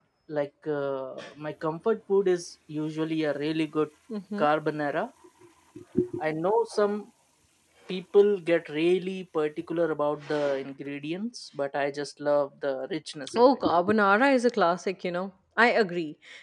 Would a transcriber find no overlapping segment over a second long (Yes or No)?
Yes